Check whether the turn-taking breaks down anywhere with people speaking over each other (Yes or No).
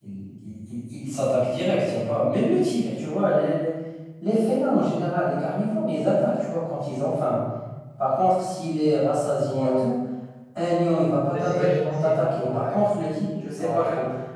Yes